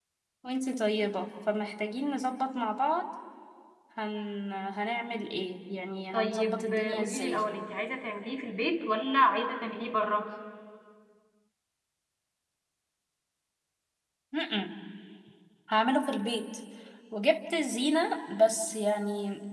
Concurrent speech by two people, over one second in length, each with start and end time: 6.1-7.4

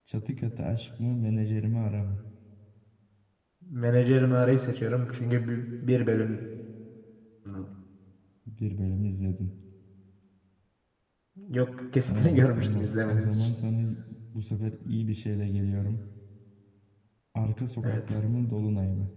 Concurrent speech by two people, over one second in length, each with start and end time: 12.1-13.3

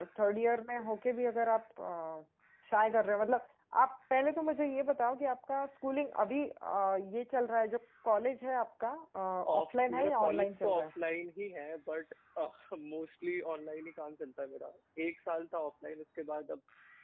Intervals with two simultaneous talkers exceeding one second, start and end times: 9.6-10.9

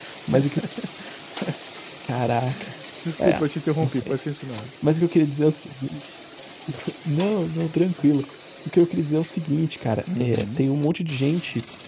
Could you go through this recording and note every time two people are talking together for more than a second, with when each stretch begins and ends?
none

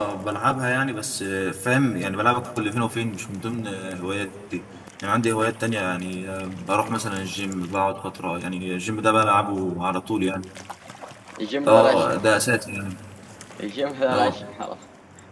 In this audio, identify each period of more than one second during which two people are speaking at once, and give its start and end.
none

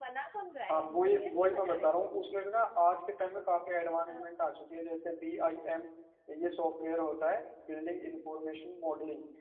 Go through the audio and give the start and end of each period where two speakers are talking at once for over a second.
0.7-2.1

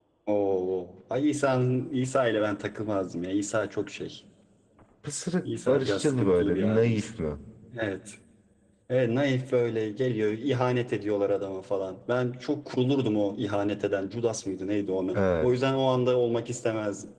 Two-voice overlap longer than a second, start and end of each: 5.4-7.1

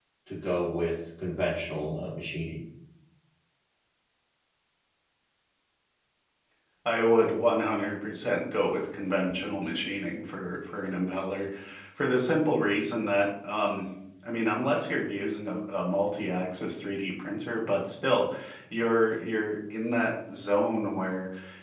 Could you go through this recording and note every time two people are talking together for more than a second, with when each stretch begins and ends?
none

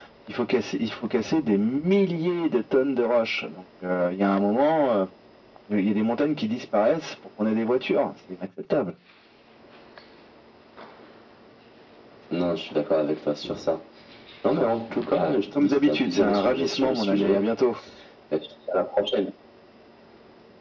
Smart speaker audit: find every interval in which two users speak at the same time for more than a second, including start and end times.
15.6-17.5

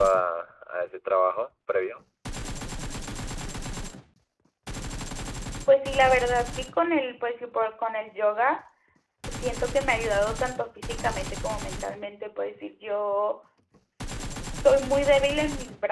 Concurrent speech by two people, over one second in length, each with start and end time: none

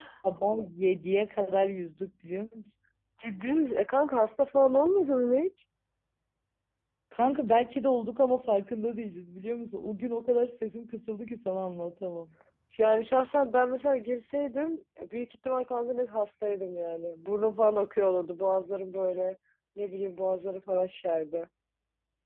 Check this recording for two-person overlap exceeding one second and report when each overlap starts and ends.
none

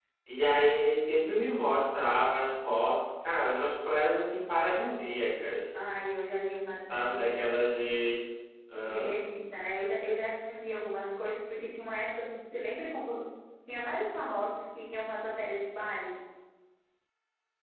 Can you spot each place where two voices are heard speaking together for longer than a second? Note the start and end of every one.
none

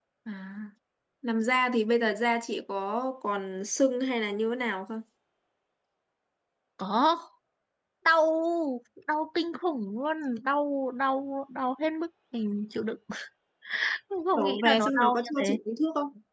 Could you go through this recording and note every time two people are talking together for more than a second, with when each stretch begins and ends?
14.3-15.6

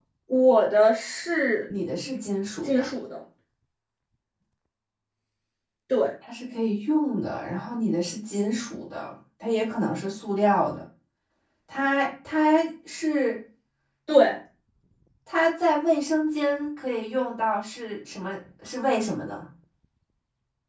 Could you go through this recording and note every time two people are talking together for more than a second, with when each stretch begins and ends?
none

